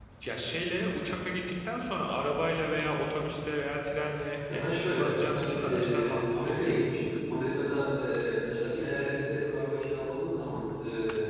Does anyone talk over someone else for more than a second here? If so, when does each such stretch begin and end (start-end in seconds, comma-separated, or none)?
4.5-6.8